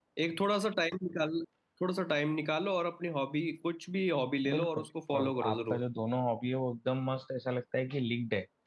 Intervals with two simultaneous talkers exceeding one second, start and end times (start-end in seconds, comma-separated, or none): 4.5-5.8